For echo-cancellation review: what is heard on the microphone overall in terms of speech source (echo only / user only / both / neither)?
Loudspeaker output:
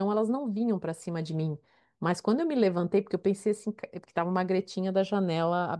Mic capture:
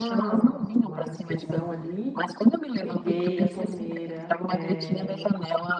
both